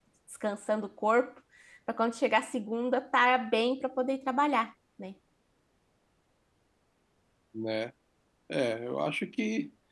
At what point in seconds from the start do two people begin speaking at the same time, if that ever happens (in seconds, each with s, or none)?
none